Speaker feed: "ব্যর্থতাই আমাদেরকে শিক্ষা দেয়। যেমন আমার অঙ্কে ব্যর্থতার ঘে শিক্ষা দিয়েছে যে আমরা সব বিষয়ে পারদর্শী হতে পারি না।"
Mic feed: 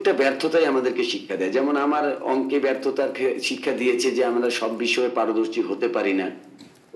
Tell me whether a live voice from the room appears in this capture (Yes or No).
No